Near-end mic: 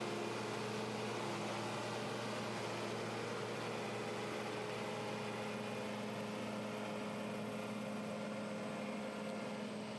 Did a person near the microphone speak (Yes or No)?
No